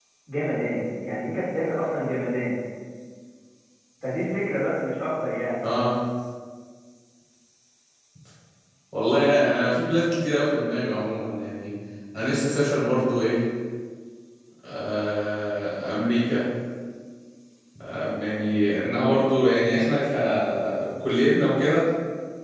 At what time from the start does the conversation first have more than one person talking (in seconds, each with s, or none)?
none